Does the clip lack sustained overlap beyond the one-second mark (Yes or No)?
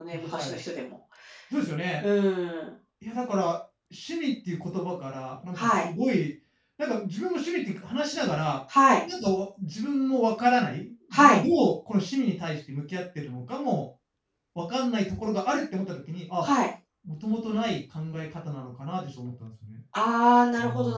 Yes